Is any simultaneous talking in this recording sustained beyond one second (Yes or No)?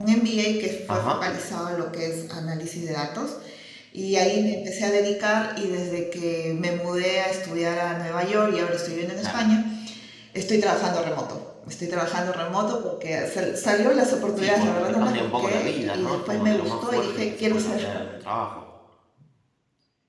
Yes